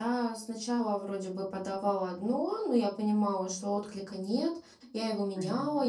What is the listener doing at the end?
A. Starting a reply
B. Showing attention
B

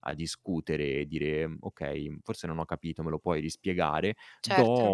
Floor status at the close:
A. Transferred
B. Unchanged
B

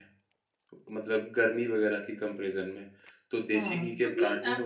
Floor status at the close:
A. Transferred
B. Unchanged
A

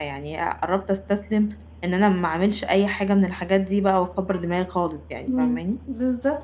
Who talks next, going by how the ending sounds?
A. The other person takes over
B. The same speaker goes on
A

